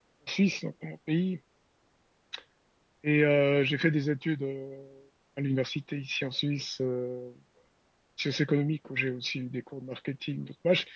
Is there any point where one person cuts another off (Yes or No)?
No